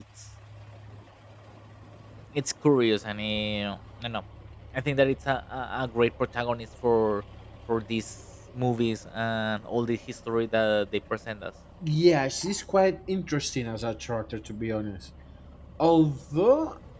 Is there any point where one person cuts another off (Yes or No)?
No